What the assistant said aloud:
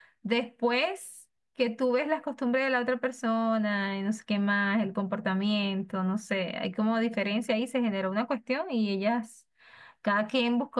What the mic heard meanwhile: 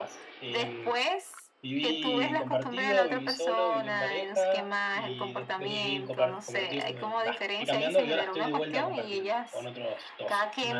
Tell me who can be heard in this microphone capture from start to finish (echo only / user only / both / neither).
both